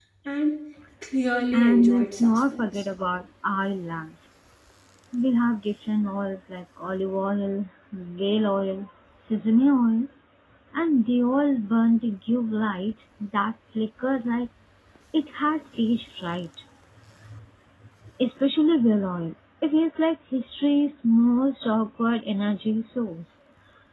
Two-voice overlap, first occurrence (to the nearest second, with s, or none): 2 s